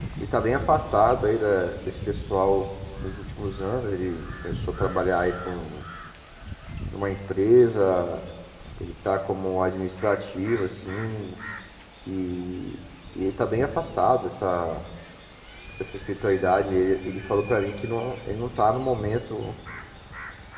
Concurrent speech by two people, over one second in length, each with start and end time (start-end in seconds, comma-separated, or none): none